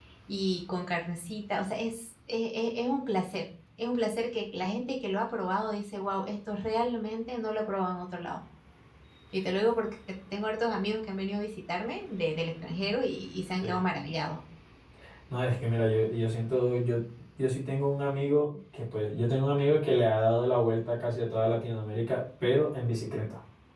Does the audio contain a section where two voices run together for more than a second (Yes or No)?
No